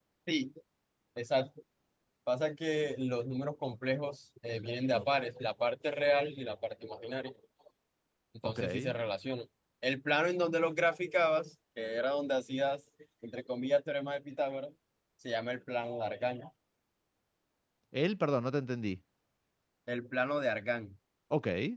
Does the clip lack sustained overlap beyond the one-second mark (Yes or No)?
Yes